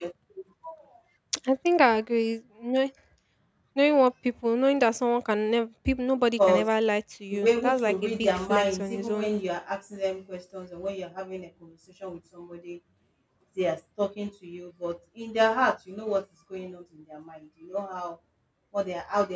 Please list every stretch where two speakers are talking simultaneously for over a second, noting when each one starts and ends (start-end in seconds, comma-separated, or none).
7.3-9.3